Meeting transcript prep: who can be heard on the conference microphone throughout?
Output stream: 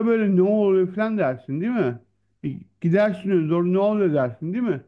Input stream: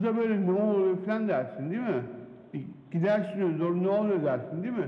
echo only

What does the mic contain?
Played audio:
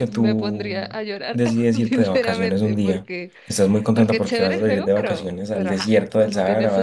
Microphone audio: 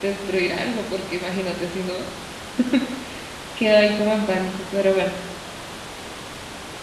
user only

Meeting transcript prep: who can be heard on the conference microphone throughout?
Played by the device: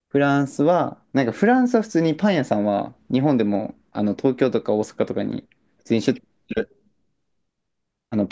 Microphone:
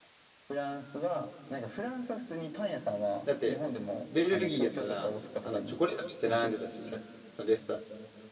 both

